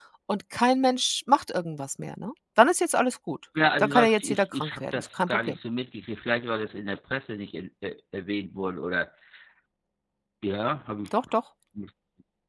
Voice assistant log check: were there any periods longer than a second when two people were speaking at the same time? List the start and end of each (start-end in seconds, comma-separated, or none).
3.8-5.6